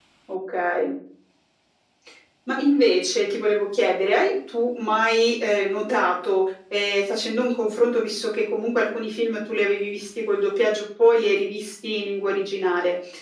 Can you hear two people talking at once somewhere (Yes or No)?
No